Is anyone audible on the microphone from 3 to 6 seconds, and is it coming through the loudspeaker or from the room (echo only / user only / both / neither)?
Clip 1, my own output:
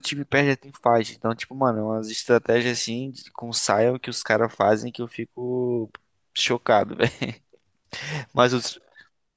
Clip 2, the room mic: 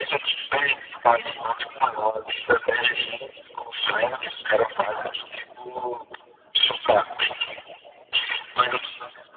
echo only